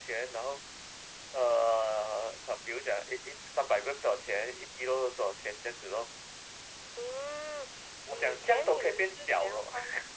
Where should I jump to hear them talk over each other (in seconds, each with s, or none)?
8.1 s